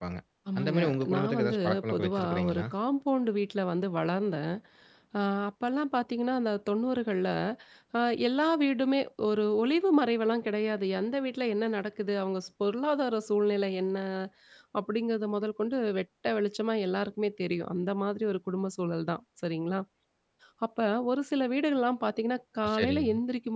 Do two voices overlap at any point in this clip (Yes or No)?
Yes